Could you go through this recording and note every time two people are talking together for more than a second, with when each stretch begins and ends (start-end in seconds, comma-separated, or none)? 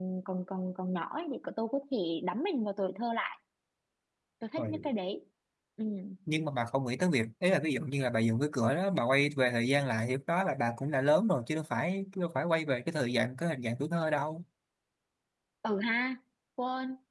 none